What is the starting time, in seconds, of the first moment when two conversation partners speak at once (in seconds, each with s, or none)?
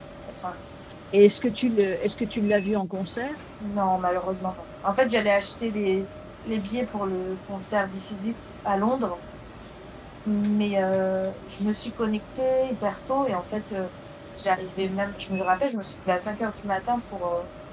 none